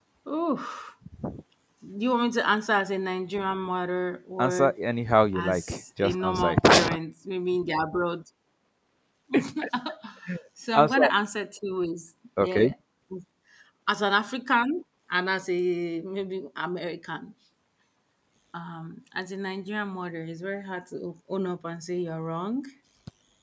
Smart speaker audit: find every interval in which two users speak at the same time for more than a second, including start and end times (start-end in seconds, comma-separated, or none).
5.3-6.9